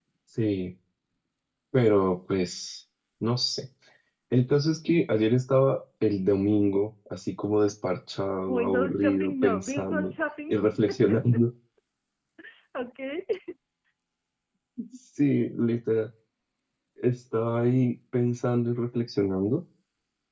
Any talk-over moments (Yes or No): Yes